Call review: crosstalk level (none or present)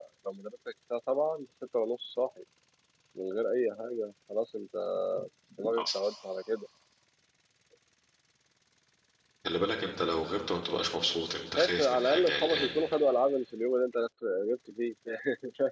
present